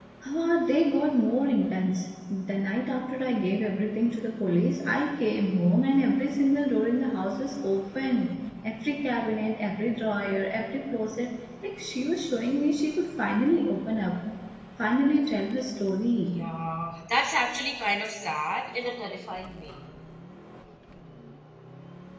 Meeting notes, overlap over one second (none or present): none